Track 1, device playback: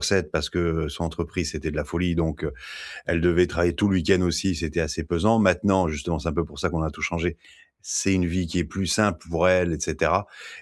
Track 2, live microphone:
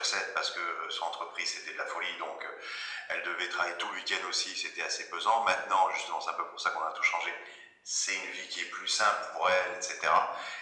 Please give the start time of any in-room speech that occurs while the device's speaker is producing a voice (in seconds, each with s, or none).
none